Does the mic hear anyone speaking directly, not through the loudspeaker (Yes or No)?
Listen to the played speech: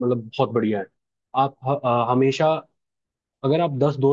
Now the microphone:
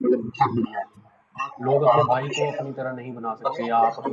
Yes